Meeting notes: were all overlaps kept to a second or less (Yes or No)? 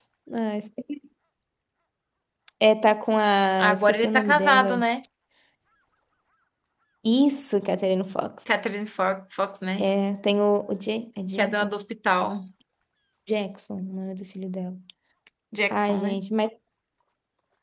No